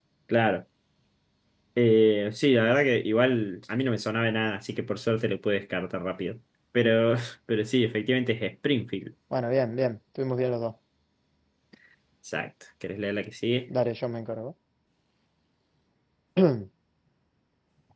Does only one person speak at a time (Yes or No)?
Yes